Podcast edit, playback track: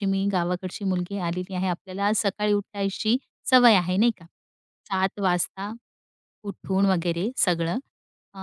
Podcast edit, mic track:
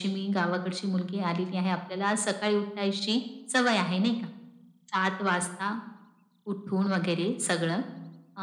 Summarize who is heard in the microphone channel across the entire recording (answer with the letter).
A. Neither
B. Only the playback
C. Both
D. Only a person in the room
B